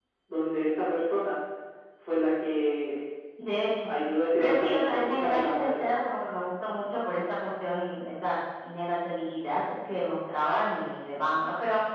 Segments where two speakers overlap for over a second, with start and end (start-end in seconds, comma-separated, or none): 4.4-5.9